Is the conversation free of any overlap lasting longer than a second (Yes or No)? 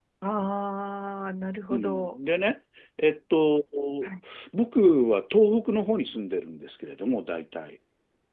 Yes